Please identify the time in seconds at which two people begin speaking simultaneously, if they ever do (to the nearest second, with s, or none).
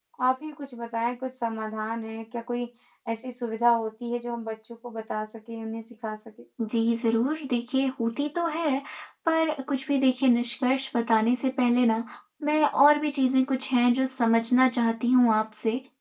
none